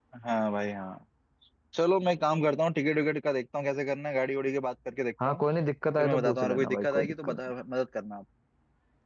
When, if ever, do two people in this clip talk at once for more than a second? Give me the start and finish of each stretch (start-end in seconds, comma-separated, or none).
6.0-7.4